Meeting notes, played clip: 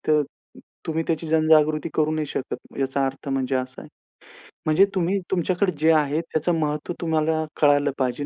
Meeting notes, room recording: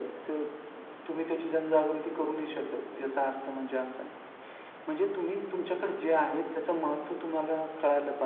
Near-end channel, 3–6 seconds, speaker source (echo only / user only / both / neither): echo only